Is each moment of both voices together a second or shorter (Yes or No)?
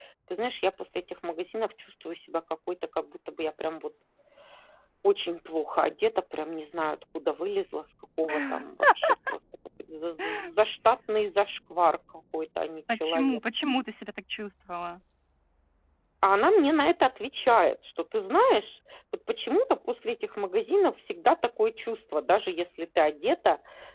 Yes